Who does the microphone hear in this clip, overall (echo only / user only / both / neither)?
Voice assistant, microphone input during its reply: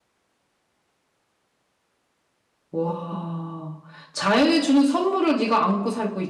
user only